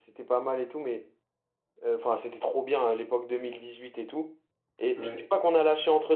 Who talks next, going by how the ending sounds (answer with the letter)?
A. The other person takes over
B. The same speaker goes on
B